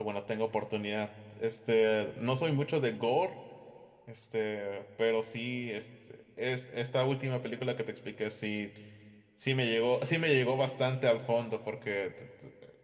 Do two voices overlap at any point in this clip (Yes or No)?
No